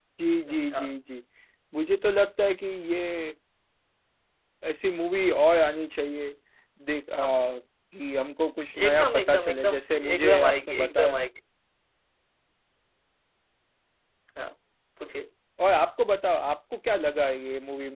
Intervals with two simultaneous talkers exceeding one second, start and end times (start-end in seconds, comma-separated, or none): 8.8-11.2